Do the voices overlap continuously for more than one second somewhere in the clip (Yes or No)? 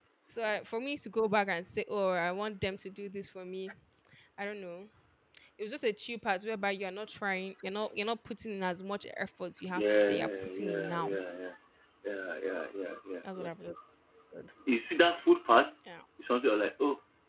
Yes